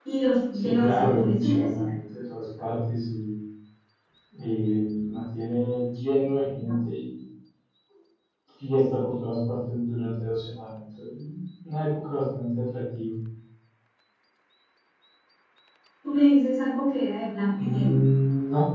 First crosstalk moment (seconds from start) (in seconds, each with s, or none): 0.5 s